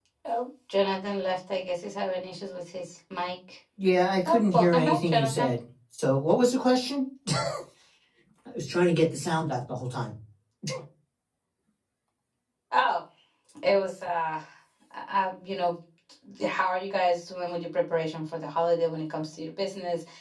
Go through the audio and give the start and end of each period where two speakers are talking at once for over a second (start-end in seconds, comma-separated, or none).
4.2-5.5